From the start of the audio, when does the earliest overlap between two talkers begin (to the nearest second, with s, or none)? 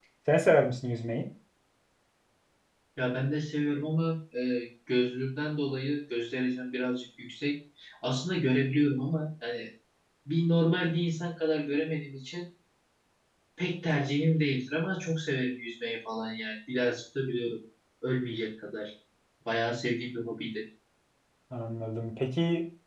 none